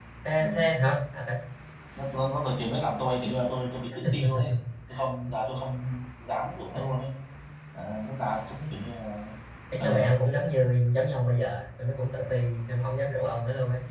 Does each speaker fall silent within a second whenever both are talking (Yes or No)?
Yes